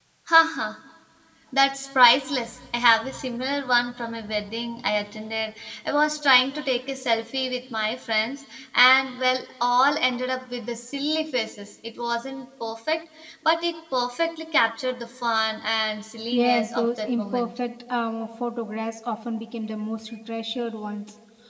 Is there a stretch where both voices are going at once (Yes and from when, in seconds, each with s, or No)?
Yes, from 16.3 s